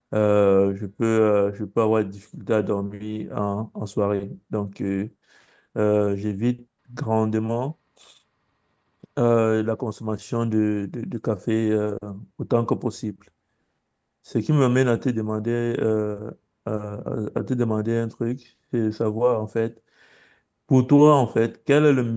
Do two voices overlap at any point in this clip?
No

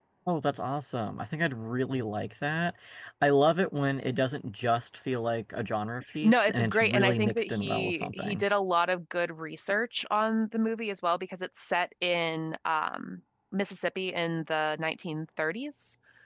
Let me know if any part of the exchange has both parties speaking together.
Yes, from 6.2 s

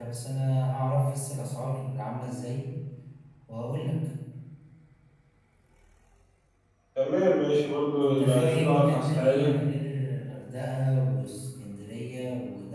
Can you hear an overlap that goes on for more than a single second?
Yes, from 8.0 s

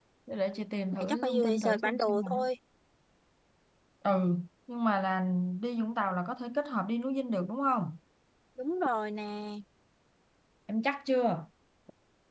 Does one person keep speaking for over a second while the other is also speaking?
Yes, from 0.9 s

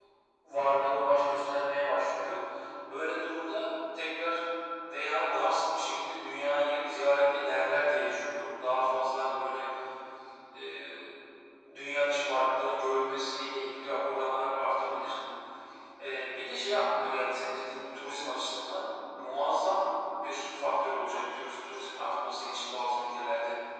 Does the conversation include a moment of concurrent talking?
No

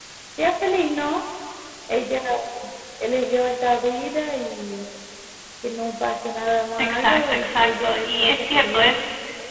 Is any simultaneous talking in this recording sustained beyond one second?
Yes, from 6.8 s

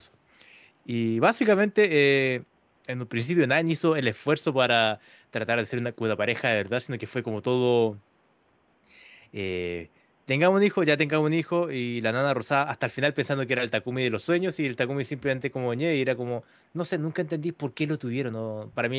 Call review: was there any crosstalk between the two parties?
No

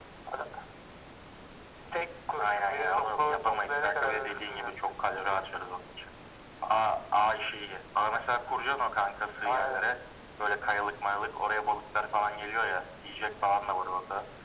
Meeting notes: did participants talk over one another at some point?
Yes, from 2.4 s

